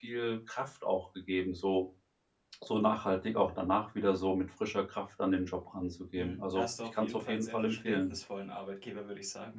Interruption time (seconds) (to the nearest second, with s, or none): 6 s